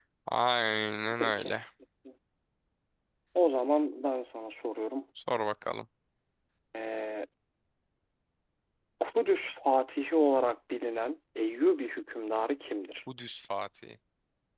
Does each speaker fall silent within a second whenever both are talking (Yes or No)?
Yes